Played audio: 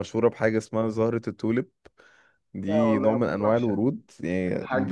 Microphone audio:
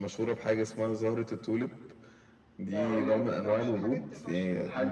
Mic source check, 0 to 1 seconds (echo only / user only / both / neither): echo only